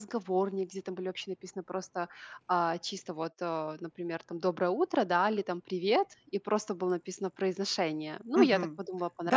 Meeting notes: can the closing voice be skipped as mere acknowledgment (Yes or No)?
No